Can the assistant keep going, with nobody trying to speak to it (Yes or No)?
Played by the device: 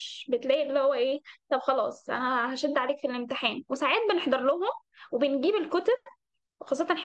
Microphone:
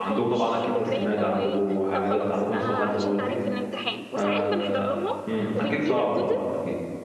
No